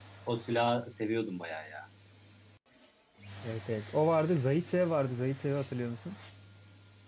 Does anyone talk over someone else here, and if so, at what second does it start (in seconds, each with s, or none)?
none